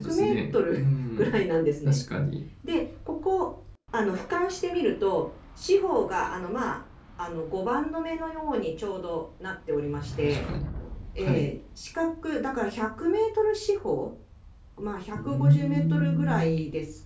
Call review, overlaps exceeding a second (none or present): present